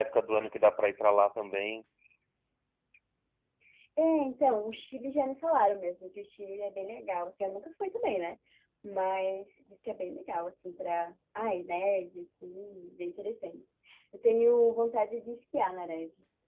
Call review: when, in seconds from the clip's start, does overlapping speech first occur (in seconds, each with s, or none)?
none